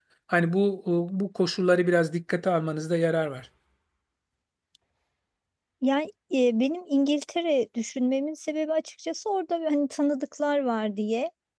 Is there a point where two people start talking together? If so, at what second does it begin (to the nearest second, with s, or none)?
none